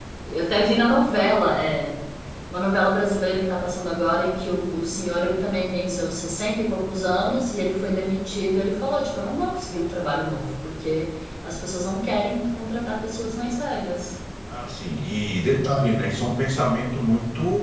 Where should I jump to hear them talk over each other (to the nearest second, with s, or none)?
none